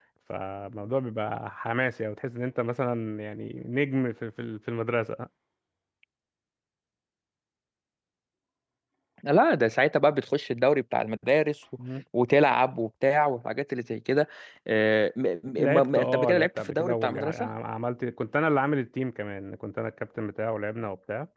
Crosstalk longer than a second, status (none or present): present